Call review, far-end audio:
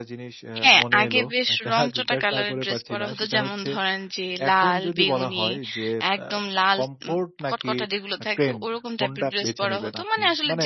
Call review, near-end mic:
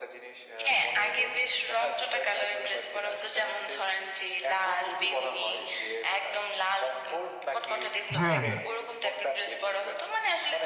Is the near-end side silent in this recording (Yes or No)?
No